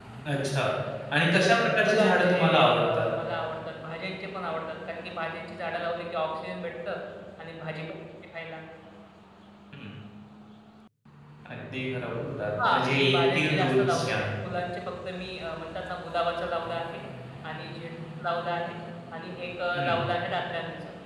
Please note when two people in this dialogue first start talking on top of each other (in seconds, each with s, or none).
1.8 s